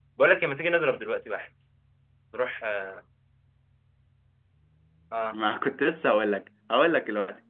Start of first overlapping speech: none

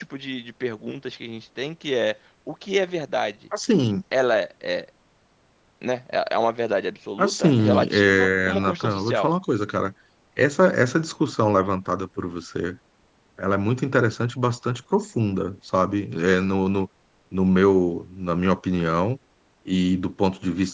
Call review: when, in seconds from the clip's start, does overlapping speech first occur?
7.2 s

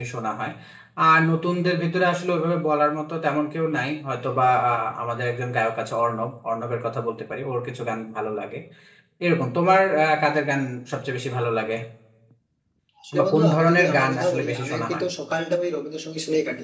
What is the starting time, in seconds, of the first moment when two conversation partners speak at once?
13.2 s

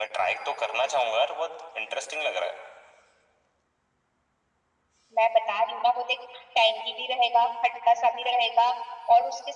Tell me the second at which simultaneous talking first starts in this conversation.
none

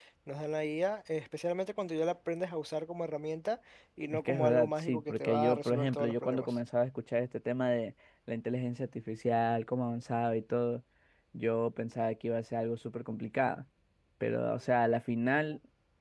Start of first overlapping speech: 4.1 s

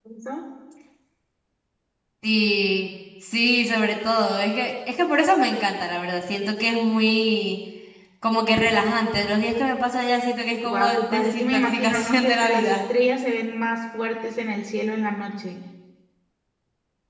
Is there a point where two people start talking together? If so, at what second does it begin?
10.6 s

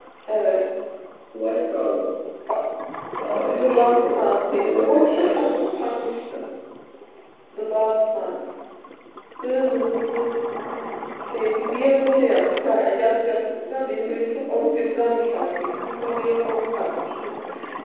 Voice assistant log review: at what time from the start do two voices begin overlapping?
3.6 s

